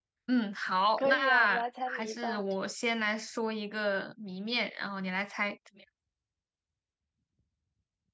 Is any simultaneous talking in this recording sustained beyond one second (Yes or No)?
Yes